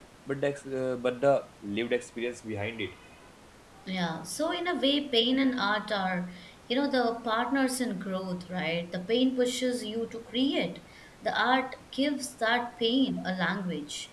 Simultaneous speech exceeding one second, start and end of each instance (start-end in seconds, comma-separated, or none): none